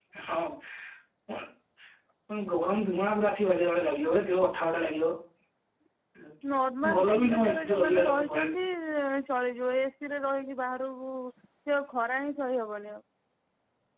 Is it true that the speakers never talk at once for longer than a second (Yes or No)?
No